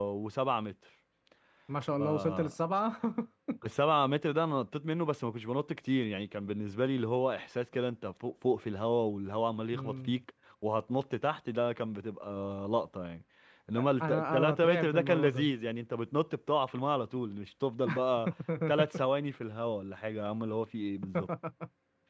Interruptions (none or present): present